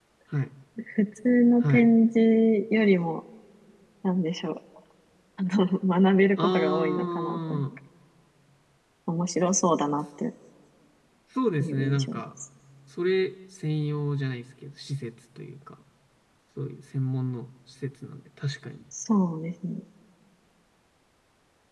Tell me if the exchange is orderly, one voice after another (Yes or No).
No